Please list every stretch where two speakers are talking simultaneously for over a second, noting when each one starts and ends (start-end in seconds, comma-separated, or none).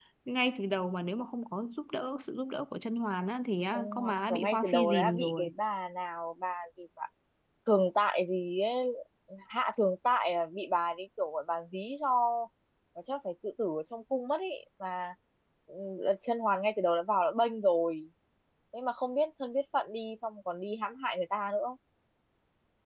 3.7-5.5